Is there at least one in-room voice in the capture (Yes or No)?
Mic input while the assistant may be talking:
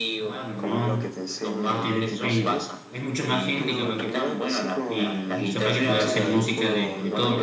Yes